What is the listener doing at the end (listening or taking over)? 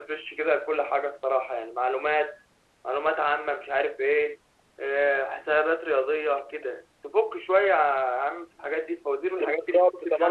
taking over